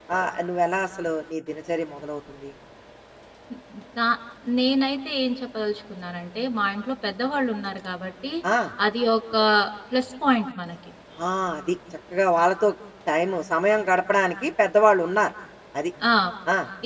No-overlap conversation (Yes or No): Yes